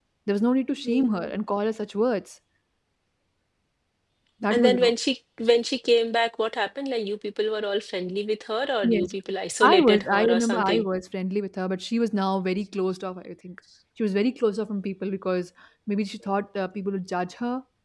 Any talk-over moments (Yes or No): Yes